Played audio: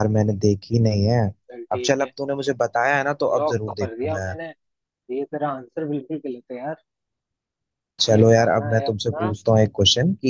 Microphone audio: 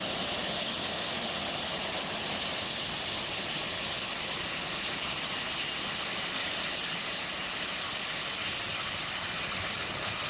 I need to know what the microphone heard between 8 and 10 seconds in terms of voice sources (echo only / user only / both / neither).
neither